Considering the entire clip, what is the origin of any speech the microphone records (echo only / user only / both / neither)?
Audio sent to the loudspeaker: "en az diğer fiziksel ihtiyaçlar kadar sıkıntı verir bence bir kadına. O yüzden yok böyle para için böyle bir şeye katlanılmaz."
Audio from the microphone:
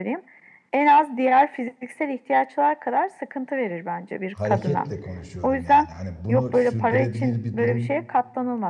both